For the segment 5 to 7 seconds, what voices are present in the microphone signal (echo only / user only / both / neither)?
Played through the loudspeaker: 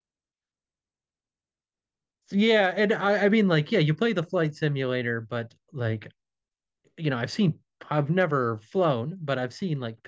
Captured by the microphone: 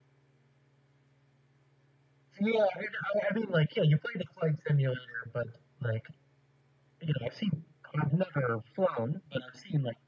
echo only